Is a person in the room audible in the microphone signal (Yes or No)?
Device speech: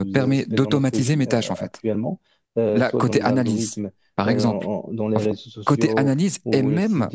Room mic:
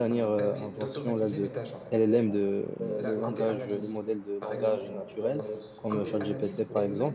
Yes